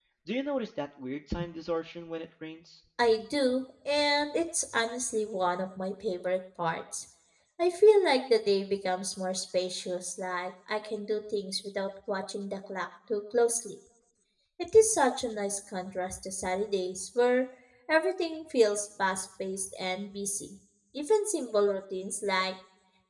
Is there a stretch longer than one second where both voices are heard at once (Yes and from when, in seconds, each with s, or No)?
No